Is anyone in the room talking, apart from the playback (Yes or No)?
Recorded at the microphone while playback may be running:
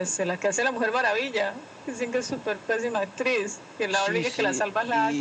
Yes